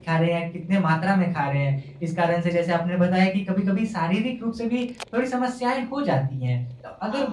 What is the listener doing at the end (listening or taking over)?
listening